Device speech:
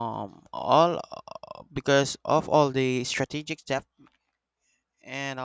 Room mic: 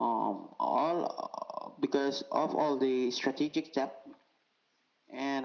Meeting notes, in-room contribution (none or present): none